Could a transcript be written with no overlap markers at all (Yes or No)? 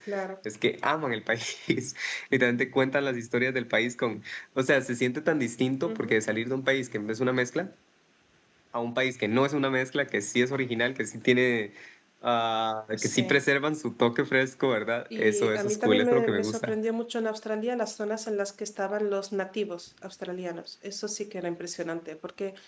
No